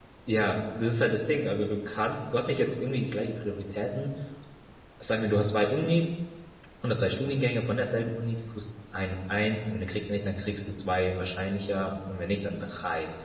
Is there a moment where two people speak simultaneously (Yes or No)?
No